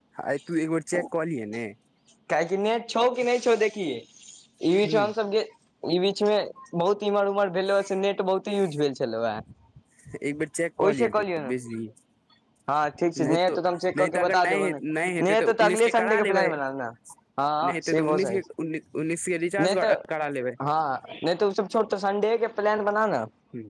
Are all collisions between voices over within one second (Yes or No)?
No